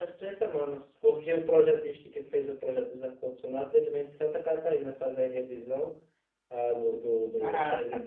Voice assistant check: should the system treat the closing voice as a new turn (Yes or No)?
No